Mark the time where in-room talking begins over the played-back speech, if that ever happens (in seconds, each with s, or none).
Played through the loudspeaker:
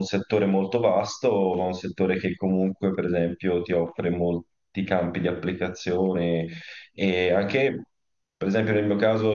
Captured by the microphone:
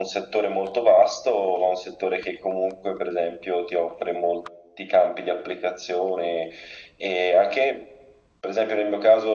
none